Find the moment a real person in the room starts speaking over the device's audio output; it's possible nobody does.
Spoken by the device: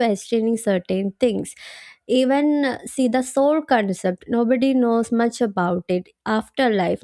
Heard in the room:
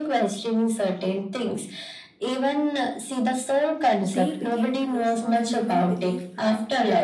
4.0 s

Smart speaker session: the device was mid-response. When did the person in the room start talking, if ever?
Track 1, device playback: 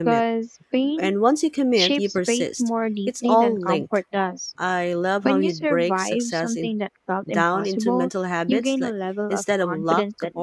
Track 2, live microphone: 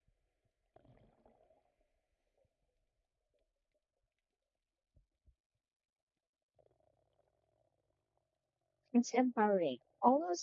8.9 s

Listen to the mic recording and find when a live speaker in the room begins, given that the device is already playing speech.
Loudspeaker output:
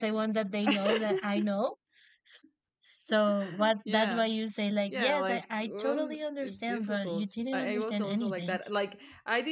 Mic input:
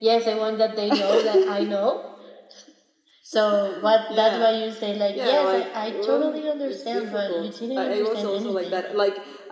none

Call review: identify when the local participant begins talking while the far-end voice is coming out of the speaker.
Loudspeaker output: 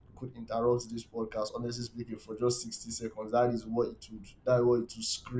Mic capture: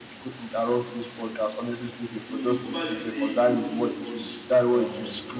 2.3 s

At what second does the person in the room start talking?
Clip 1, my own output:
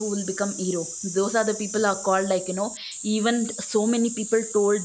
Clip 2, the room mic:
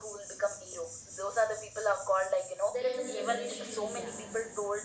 2.7 s

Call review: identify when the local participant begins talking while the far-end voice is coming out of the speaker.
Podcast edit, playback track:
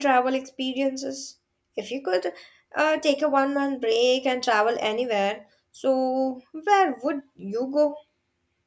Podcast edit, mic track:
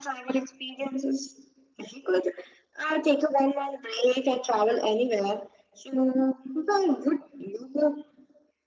none

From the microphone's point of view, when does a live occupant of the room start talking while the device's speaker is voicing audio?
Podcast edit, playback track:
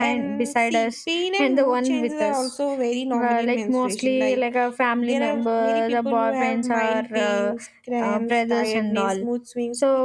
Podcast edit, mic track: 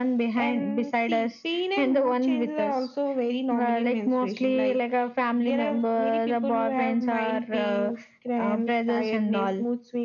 none

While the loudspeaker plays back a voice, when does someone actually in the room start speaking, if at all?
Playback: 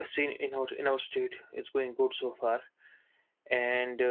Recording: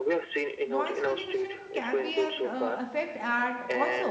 0.6 s

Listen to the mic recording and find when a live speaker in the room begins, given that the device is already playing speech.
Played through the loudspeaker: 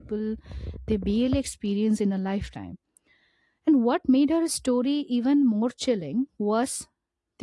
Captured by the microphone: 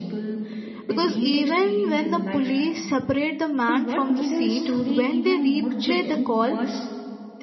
0.9 s

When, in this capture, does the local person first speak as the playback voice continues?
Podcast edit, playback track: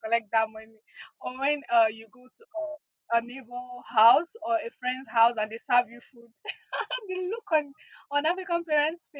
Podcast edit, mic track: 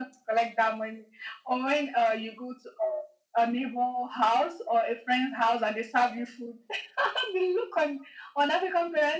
none

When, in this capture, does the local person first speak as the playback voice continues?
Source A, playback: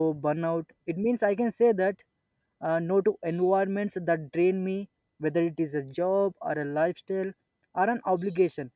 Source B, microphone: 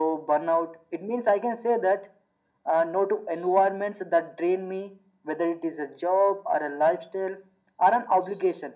none

